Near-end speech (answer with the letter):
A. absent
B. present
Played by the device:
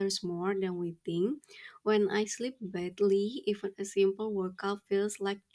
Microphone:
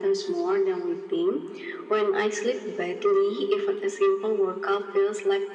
A